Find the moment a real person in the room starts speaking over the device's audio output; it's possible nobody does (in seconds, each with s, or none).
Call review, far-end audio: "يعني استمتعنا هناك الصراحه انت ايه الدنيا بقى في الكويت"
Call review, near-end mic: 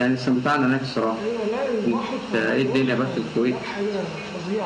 1.1 s